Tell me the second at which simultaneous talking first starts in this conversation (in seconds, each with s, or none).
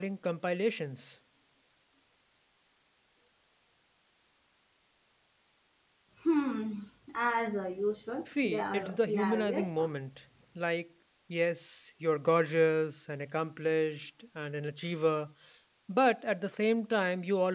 8.3 s